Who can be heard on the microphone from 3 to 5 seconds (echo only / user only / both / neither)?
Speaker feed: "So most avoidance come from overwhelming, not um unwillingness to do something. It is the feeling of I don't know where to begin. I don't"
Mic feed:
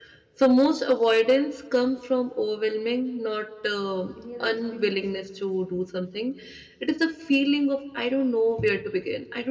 both